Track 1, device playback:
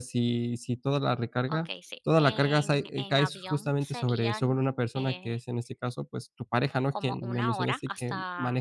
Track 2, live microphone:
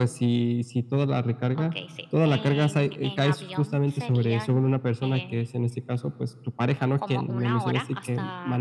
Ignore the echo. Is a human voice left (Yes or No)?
No